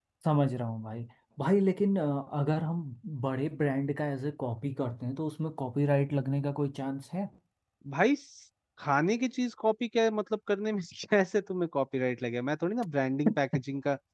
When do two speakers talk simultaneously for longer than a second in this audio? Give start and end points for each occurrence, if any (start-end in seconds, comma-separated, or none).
none